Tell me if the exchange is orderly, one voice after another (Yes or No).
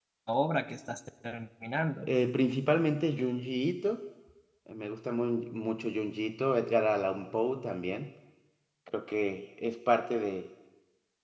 Yes